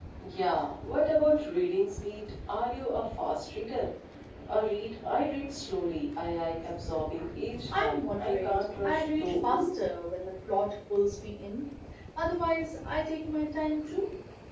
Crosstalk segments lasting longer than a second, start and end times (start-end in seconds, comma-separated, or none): 7.7-9.8